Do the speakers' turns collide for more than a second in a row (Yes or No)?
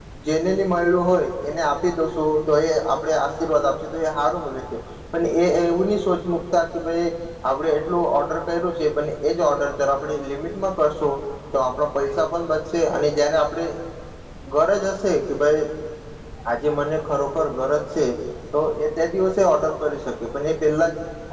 No